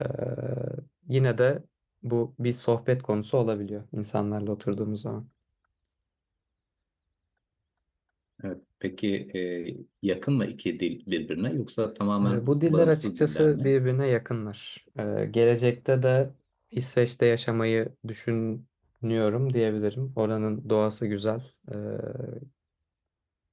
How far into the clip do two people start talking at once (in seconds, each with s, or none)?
12.2 s